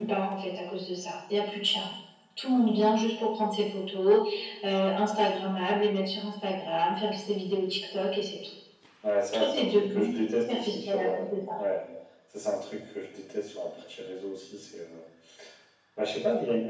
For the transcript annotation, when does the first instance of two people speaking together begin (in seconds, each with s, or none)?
9.3 s